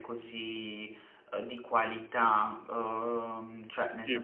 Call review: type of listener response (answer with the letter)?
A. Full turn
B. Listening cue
B